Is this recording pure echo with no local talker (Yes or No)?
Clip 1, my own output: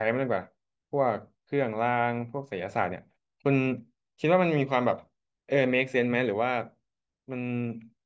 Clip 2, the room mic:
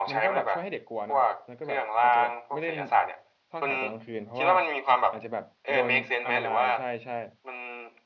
No